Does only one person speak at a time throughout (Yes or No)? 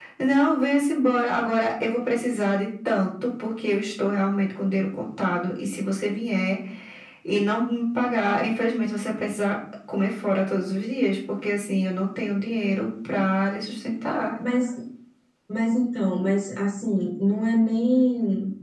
Yes